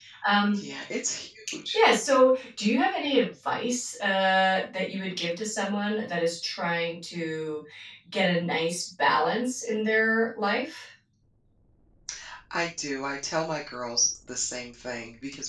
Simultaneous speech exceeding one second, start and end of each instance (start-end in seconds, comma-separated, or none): none